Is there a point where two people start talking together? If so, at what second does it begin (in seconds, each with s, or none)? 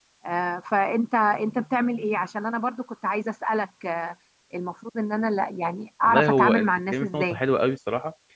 6.0 s